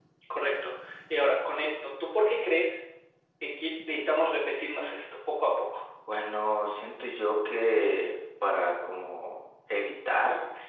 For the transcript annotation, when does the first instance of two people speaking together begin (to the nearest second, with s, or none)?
none